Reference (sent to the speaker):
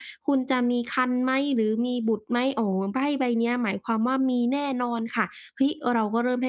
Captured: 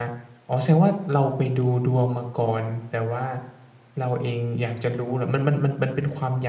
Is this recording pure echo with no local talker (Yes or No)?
No